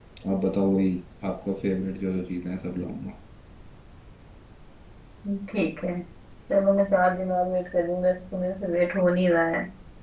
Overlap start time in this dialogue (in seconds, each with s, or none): none